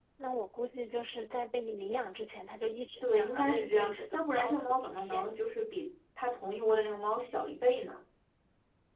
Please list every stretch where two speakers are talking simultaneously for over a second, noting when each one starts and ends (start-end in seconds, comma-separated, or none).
3.0-5.4